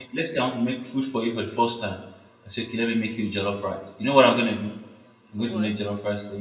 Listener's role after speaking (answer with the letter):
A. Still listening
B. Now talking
A